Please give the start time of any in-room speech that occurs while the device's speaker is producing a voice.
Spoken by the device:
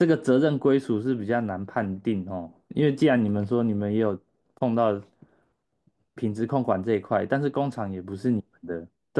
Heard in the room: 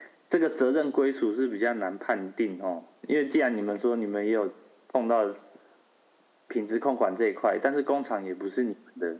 none

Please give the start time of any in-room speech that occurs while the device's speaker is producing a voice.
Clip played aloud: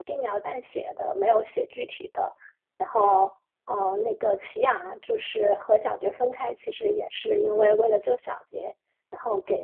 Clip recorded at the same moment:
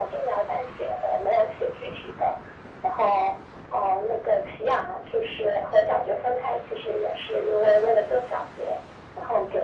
none

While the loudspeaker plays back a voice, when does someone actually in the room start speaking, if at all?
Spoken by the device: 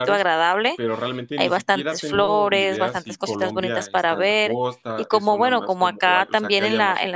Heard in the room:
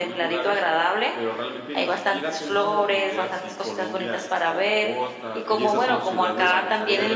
5.5 s

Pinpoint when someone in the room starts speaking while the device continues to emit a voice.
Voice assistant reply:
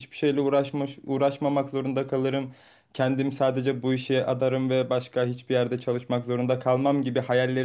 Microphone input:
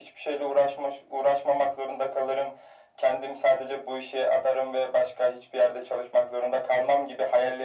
none

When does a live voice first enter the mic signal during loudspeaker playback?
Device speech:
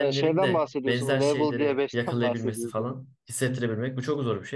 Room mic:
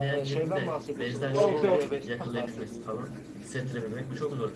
1.3 s

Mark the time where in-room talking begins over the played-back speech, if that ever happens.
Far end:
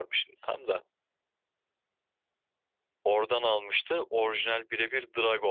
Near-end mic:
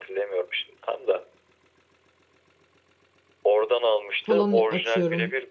4.2 s

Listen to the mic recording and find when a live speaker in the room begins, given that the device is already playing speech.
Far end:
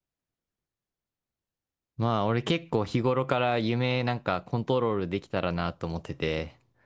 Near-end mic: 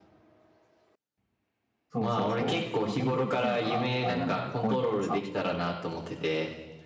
1.9 s

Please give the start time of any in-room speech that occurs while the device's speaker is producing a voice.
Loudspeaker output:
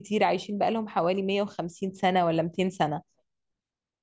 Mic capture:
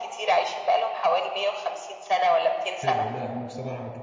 2.8 s

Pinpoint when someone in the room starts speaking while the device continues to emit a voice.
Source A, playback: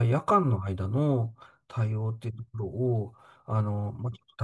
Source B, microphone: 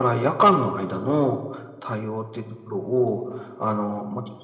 none

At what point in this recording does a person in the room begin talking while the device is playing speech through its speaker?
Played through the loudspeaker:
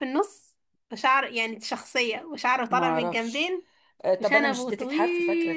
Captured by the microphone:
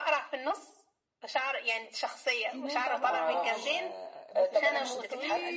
2.5 s

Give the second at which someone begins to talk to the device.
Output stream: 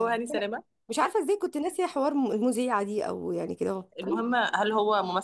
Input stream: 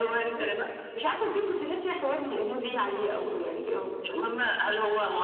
none

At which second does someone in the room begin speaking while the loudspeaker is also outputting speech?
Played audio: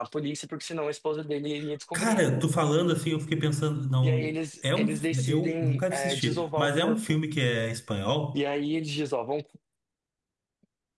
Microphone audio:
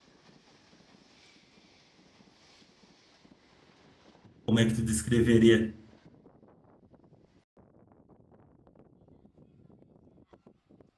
4.5 s

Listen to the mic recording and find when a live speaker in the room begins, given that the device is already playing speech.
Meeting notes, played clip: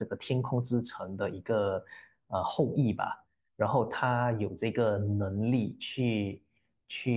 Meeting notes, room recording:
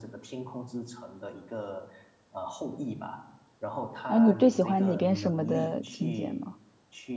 4.1 s

